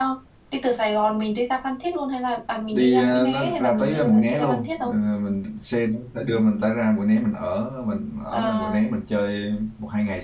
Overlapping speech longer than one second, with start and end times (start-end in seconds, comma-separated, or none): 2.7-4.9